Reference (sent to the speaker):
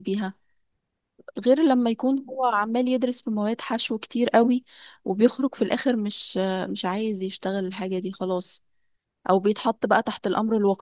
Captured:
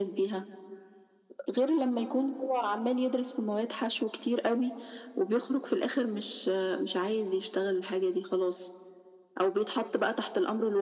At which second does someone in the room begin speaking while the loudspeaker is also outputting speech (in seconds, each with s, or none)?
none